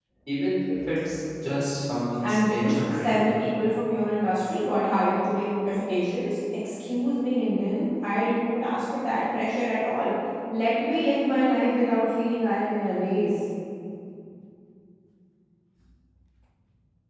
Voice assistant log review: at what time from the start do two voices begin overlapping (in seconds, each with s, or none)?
2.2 s